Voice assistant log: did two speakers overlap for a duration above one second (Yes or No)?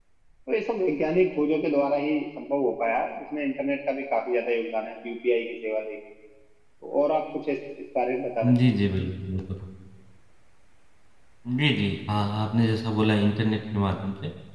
No